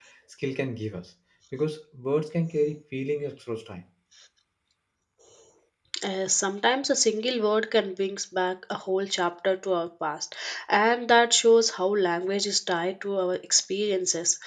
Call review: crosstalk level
none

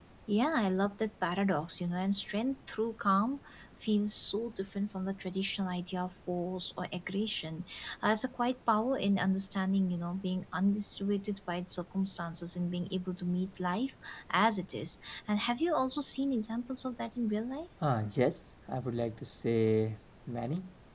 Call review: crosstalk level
none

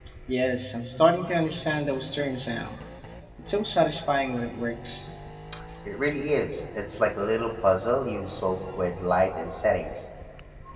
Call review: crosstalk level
none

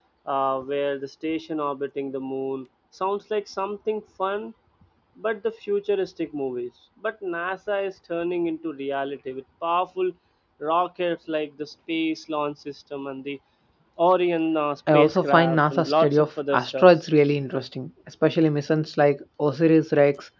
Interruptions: present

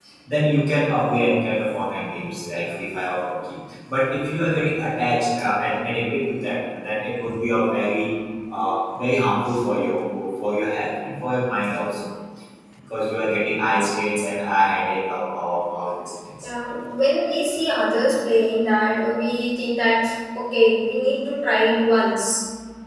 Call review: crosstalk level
none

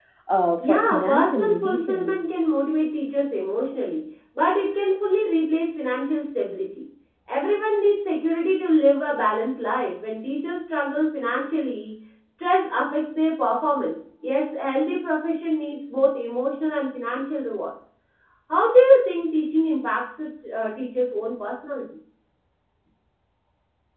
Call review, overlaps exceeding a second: present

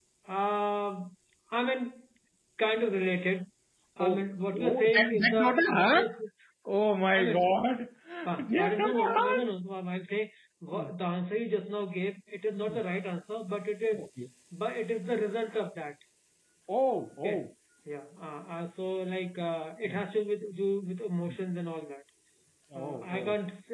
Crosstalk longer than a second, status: present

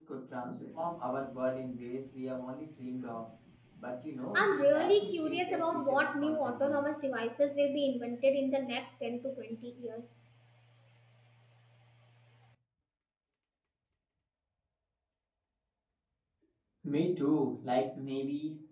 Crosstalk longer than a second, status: present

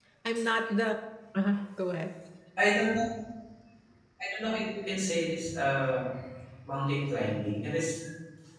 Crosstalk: none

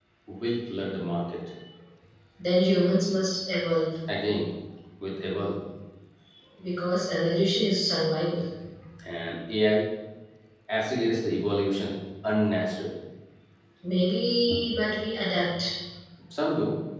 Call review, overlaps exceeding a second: none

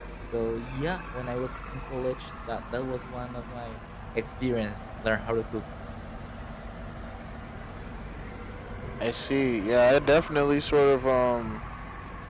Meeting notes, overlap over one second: none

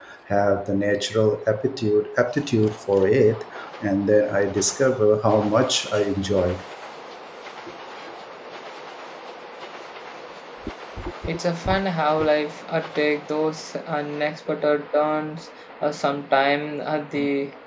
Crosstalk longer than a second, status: none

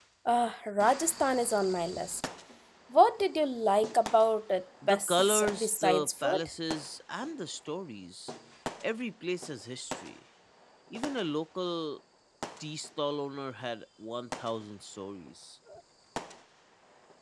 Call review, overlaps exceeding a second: present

